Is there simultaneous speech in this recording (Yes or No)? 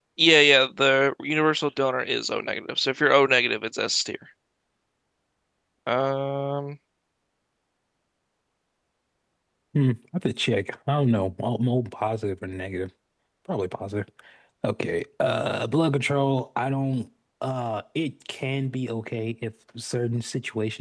No